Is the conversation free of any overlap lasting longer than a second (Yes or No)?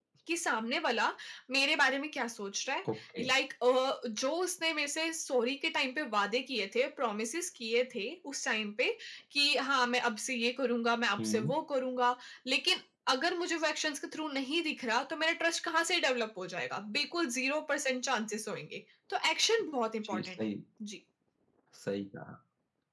Yes